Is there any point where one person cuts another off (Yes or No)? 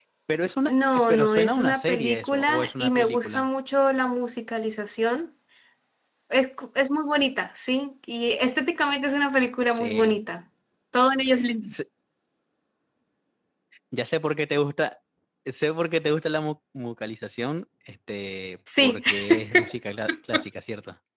Yes